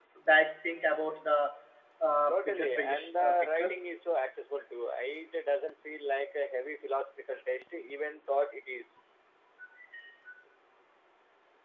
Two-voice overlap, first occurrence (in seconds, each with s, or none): 2.3 s